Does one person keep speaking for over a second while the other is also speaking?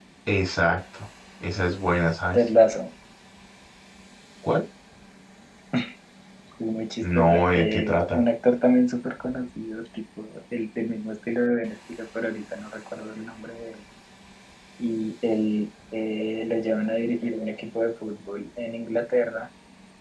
Yes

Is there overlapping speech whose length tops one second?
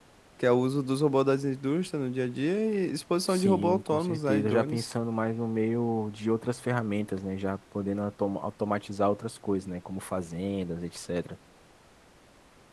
Yes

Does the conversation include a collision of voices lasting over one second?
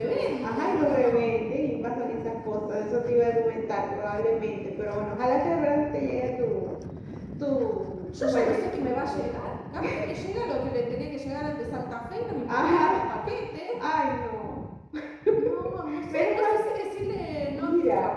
Yes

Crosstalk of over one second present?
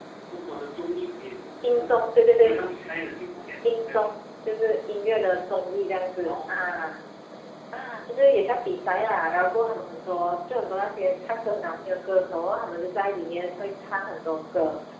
No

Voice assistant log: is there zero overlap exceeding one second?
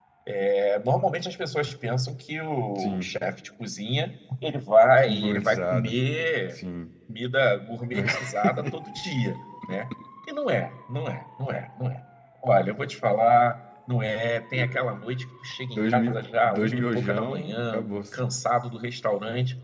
No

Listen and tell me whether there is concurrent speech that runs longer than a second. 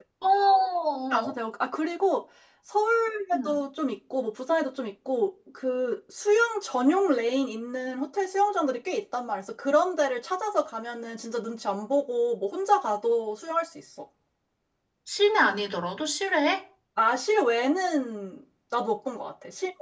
No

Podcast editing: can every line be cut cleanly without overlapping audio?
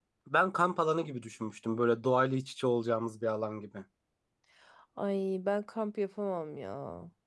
Yes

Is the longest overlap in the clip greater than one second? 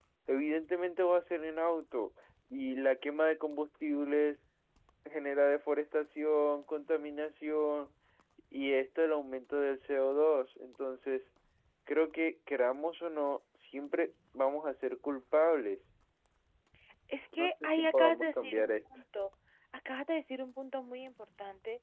Yes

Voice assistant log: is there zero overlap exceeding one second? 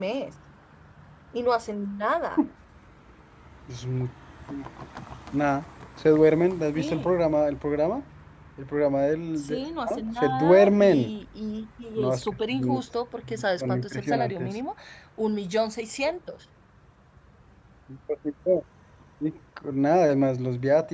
No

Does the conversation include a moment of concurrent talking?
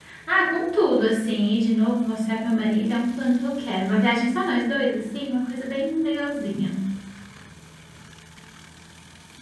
No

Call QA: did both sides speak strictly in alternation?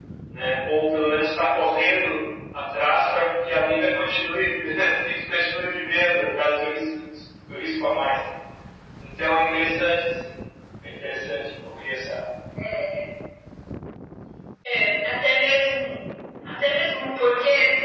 Yes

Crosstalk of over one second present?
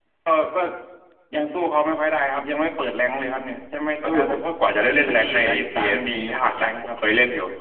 Yes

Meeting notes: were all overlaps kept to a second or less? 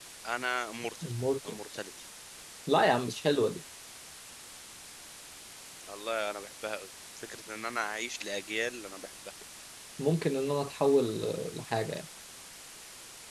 Yes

